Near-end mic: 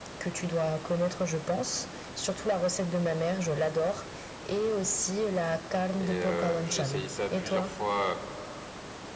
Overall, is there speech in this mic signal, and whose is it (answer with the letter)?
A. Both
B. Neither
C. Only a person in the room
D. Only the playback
A